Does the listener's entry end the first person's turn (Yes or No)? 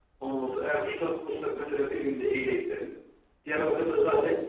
No